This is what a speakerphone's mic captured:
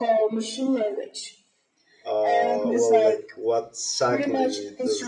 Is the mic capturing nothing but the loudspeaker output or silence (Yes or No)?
No